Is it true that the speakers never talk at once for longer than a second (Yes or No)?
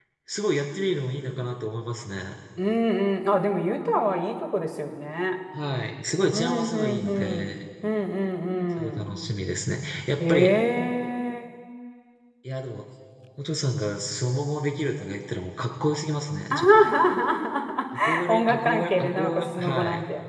No